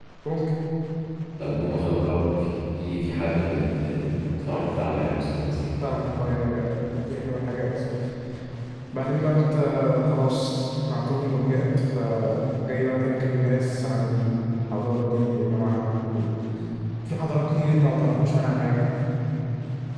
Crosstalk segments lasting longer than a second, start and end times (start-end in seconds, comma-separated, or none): none